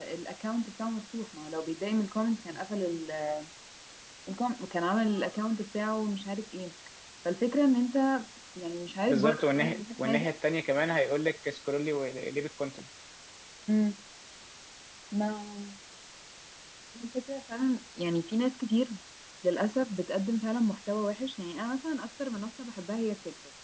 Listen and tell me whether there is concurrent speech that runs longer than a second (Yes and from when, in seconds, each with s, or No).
Yes, from 9.1 s